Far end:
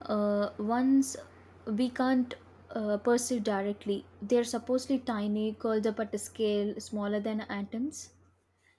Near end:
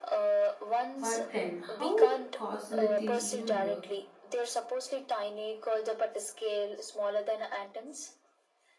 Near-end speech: present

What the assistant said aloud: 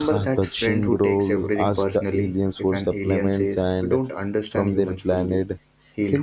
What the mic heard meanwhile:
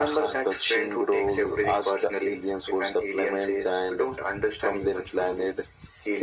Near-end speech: none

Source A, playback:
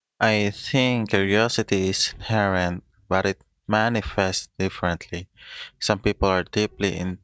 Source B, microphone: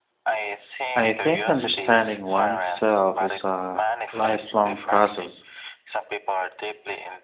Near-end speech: present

